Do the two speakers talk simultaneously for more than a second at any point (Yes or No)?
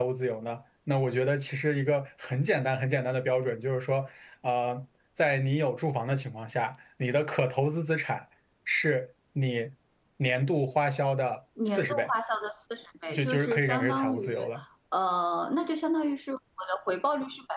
Yes